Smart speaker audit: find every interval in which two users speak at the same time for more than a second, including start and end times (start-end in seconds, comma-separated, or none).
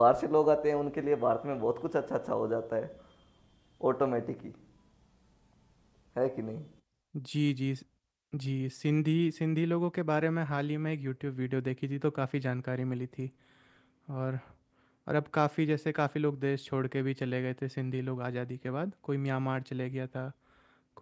none